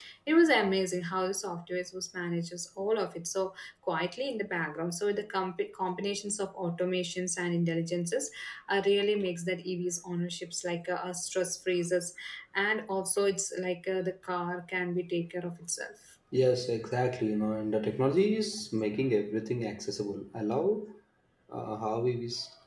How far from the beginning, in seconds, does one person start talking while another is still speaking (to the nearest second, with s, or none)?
none